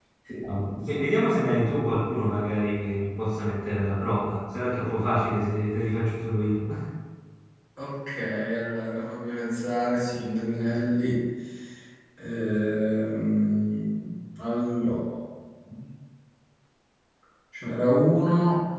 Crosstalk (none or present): none